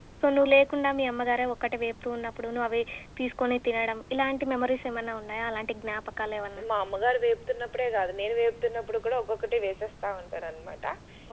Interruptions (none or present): none